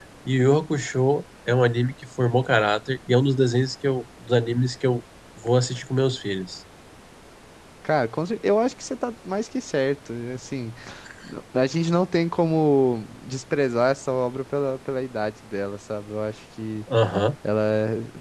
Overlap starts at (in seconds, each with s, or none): none